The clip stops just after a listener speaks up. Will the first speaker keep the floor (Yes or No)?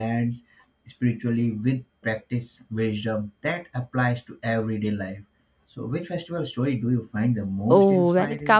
No